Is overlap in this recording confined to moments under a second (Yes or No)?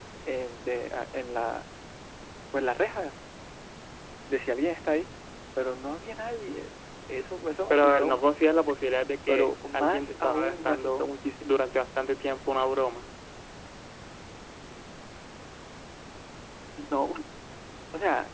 No